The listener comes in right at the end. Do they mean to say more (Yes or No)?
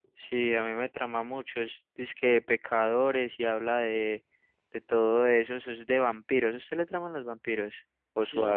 Yes